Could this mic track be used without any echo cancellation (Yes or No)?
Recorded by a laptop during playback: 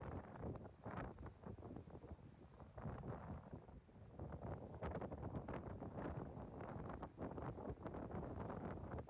Yes